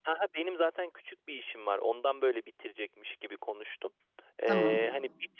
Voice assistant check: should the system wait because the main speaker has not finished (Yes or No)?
Yes